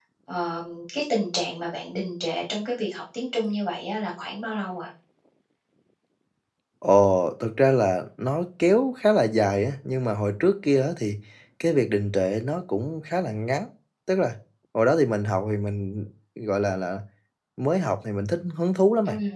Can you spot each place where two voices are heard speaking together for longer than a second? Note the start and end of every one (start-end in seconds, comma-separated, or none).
none